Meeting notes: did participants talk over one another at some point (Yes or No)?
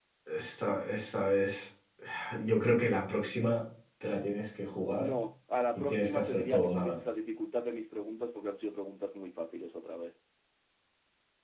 Yes